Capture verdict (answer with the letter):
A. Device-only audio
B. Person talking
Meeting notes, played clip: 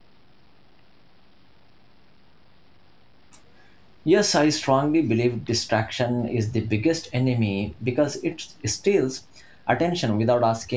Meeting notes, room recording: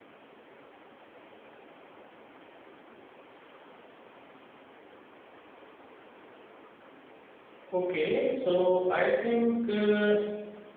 B